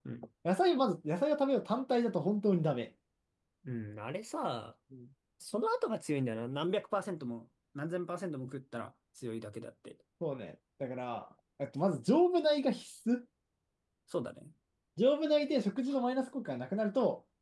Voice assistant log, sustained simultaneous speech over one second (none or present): none